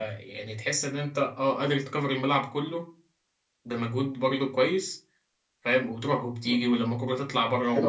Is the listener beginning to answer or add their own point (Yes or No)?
Yes